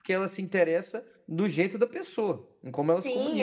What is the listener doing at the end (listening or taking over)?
taking over